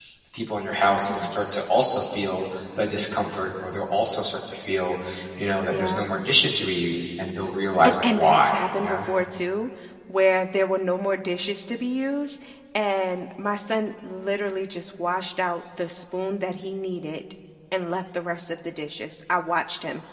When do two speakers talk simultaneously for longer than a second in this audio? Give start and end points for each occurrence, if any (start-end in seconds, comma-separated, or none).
7.8-9.1